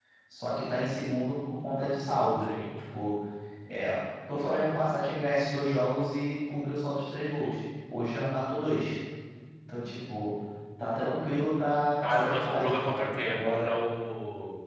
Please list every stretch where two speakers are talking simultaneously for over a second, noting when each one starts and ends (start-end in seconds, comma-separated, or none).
12.0-13.8